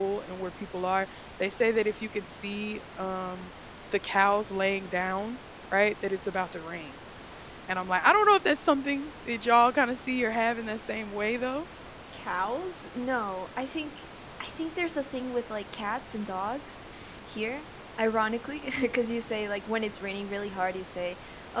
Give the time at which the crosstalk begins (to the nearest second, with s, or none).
none